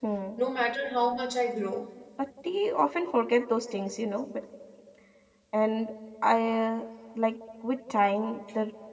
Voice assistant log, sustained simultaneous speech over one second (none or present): none